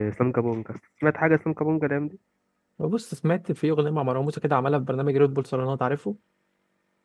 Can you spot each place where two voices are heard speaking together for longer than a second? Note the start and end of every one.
none

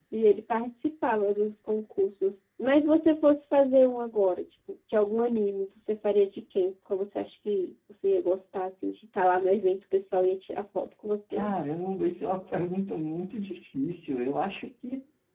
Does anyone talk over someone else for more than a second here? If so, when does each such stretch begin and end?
none

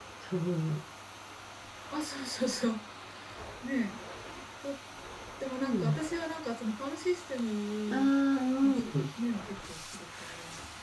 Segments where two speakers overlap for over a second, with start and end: none

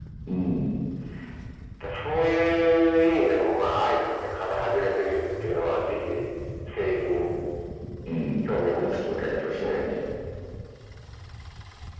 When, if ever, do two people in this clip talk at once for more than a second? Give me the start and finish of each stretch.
8.4-9.8

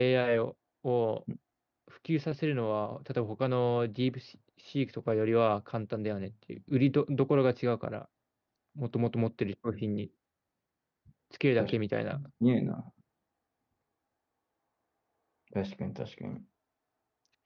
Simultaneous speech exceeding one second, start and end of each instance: none

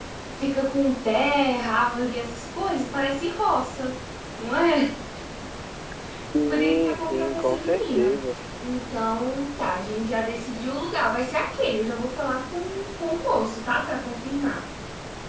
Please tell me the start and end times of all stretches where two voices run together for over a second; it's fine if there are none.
6.5-8.1

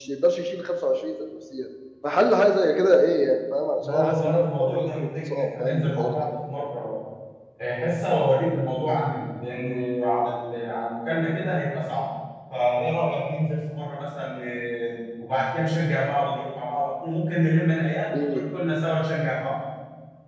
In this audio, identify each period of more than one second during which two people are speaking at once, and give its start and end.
3.9-6.2

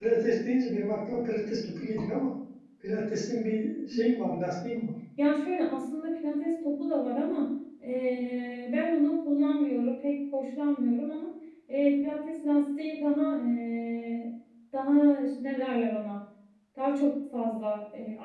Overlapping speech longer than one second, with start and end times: none

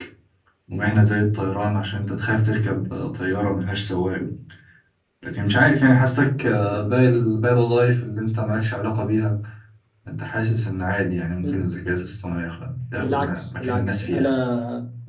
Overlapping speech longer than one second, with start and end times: 13.0-14.3

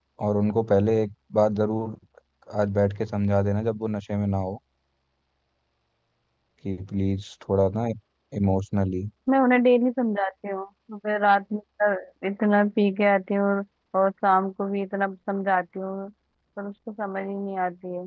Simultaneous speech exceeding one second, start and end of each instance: none

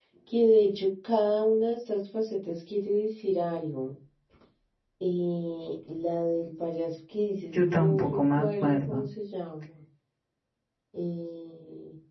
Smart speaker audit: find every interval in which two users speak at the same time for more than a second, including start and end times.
7.5-9.0

